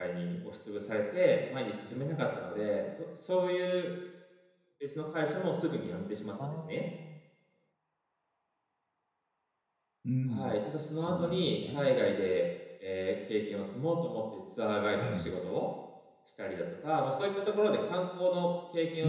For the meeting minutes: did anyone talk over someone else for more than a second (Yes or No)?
Yes